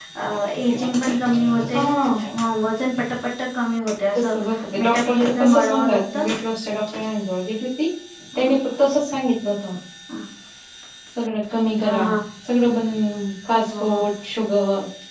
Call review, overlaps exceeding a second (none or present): present